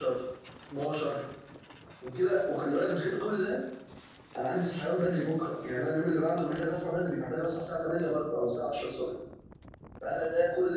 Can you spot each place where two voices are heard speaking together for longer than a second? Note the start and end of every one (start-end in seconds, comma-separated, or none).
none